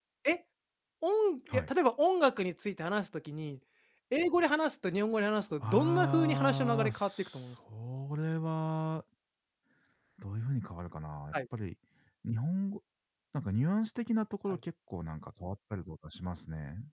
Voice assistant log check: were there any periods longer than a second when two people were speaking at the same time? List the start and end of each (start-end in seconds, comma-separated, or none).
5.6-7.5